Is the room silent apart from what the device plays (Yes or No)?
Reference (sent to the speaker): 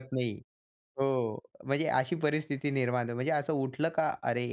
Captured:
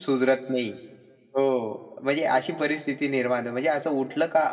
Yes